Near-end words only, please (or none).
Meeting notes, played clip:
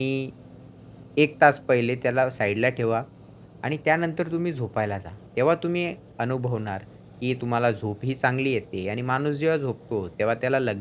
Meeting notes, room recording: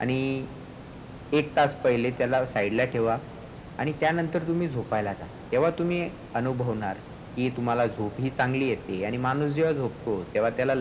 none